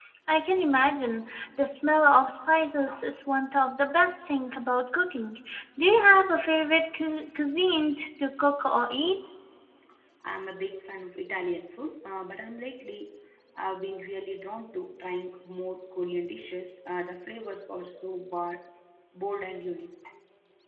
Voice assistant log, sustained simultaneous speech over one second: none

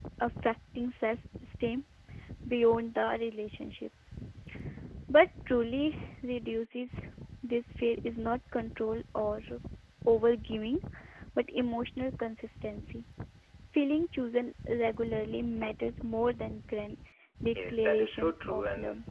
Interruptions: present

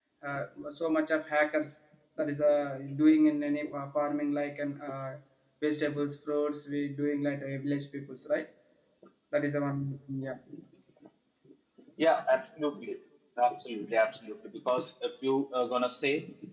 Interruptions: none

